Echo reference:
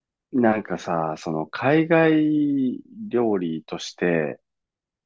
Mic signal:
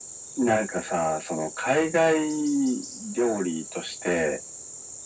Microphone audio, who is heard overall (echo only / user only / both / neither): echo only